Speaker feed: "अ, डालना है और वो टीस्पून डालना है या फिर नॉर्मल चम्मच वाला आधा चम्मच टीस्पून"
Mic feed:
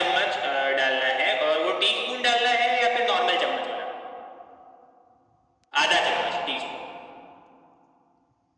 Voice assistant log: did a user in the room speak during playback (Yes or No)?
No